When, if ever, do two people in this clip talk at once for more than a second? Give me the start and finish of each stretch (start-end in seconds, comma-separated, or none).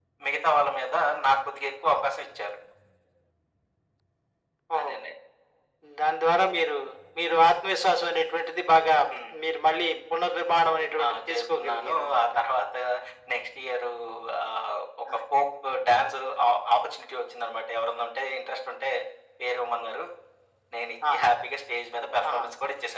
11.0-12.3